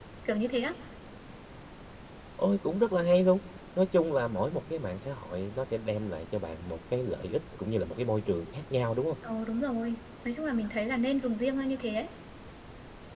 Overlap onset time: none

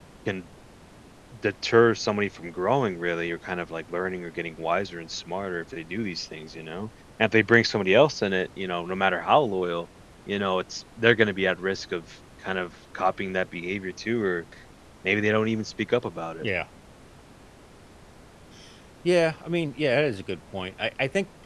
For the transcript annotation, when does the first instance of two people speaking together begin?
none

